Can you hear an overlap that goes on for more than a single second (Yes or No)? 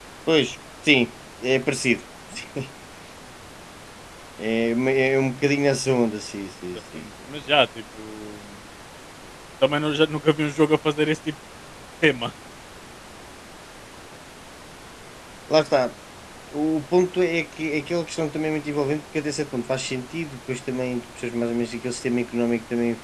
No